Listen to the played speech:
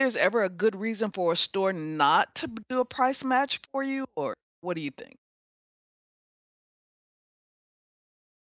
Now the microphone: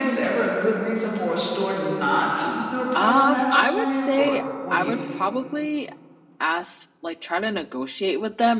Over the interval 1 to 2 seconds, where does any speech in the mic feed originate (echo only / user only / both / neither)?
echo only